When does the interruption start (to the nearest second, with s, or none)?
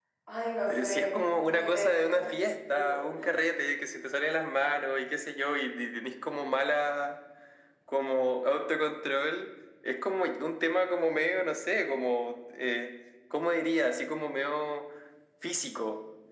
1 s